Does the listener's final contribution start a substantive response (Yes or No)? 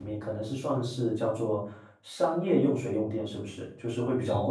Yes